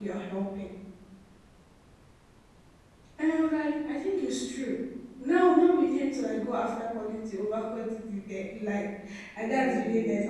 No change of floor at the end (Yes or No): Yes